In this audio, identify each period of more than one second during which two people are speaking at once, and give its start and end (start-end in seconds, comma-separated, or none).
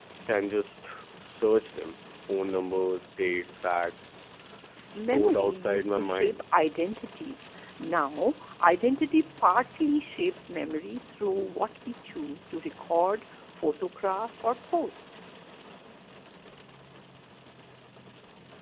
5.0-6.4